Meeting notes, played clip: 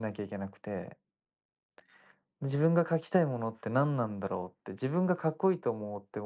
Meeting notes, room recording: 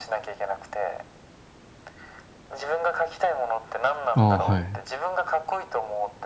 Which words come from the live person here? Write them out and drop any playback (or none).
ああ、はい。